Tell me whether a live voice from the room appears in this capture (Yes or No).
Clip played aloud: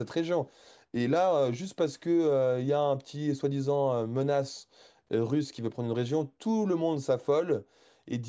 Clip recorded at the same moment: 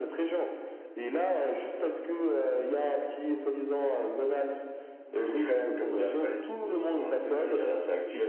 Yes